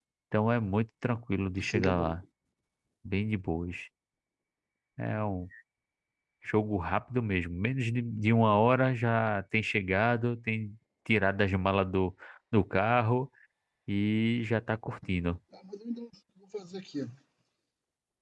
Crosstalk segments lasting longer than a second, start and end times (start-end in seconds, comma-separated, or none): none